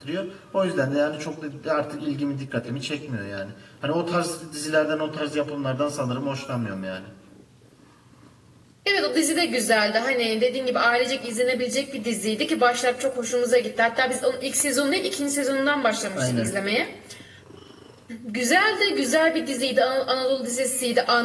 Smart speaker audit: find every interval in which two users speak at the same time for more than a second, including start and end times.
none

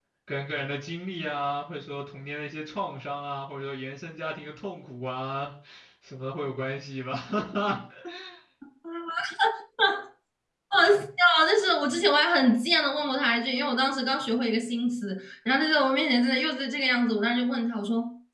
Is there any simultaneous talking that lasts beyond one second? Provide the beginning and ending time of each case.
none

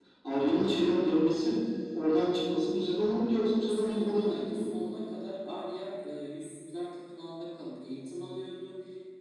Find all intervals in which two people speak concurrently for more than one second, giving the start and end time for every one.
3.6-4.8

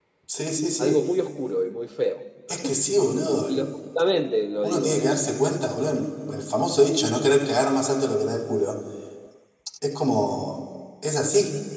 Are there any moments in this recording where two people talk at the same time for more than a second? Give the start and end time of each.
none

